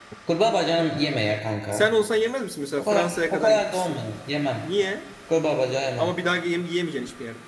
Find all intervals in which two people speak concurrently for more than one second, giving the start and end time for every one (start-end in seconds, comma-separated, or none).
2.8-4.1